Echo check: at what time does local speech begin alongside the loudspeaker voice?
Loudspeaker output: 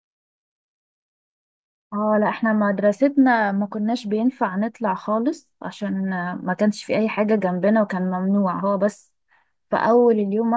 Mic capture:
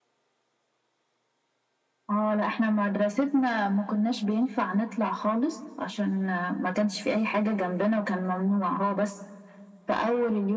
none

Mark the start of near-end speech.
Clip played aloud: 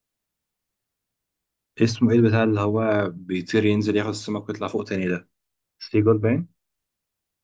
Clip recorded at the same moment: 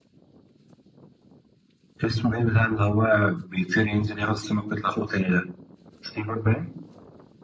none

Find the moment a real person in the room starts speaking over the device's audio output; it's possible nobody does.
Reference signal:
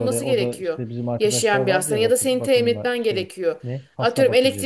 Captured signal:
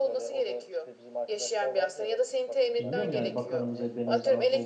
2.8 s

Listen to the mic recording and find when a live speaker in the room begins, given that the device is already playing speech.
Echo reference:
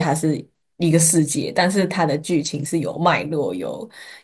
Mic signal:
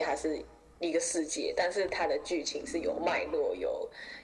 none

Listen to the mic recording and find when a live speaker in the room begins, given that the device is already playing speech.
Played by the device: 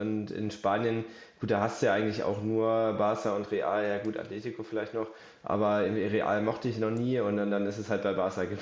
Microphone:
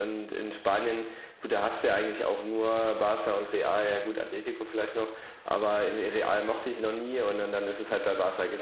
none

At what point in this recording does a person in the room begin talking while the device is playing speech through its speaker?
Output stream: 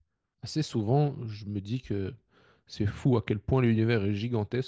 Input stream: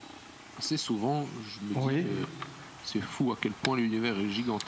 1.7 s

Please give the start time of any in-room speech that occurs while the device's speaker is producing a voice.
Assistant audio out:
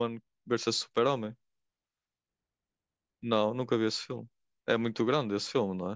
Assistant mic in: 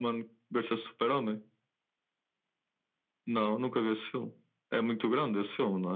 none

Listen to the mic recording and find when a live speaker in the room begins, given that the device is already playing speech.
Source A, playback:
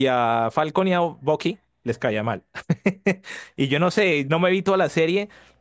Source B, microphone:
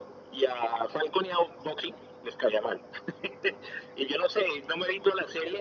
none

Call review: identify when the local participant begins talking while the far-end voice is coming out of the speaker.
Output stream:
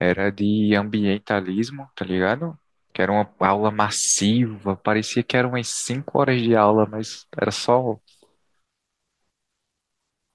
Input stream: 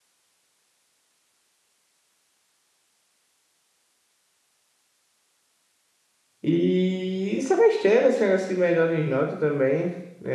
6.4 s

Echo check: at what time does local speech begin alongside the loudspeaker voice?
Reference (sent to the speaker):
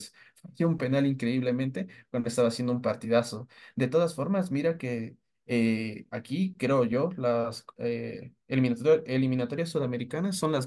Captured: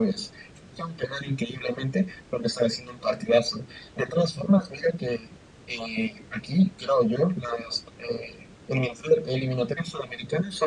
none

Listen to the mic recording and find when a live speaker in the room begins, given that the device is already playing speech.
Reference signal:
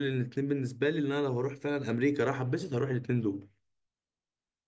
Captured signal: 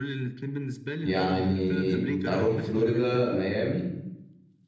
1.0 s

